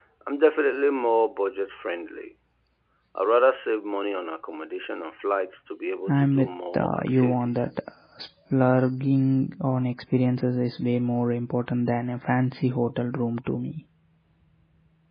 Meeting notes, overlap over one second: present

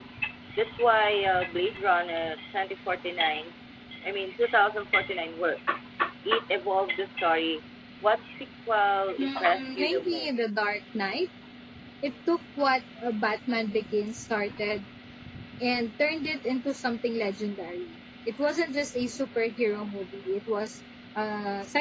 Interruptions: present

